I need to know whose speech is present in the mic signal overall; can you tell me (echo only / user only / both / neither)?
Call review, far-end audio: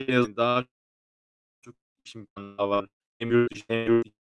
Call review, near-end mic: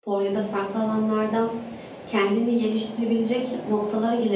user only